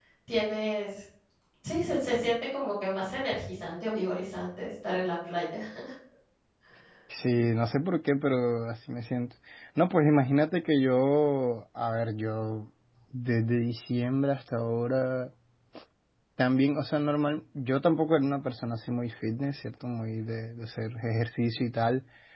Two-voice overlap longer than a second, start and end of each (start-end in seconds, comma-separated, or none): none